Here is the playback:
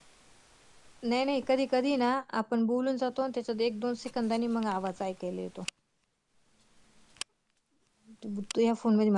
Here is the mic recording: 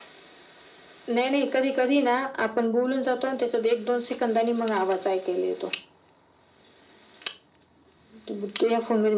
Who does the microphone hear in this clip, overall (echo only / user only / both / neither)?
echo only